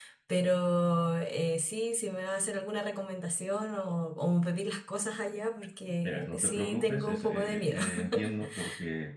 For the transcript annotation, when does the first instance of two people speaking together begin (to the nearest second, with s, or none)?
6 s